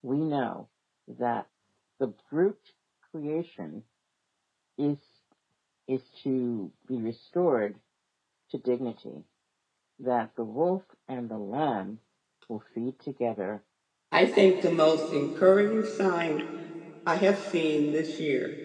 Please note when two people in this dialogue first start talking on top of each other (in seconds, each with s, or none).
none